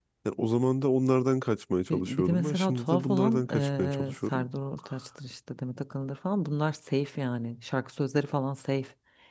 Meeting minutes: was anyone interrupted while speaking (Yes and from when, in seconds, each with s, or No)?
Yes, from 1.9 s